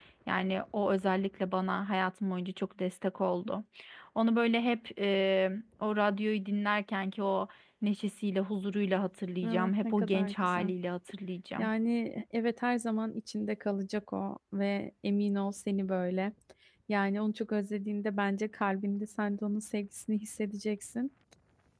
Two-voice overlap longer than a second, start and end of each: 9.4-10.7

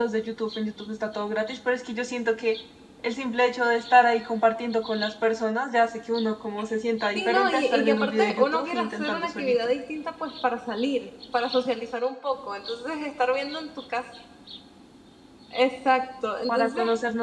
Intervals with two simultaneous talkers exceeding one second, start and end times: 7.2-9.6

